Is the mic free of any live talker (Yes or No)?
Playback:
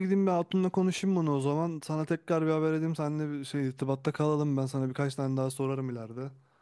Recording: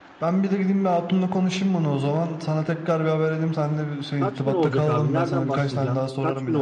No